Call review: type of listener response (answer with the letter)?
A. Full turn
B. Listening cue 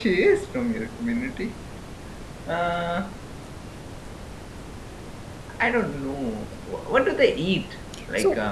B